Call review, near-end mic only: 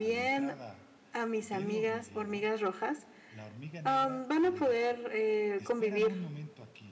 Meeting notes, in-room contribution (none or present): present